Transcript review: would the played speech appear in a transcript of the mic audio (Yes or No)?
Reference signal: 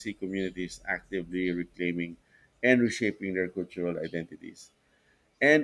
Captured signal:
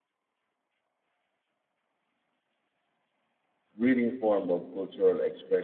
No